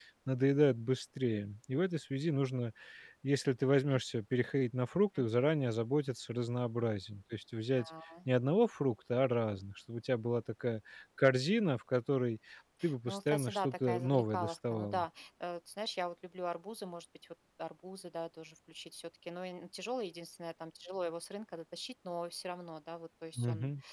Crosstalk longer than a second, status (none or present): present